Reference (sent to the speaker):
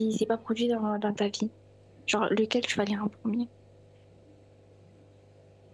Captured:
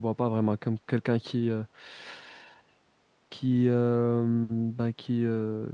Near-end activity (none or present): present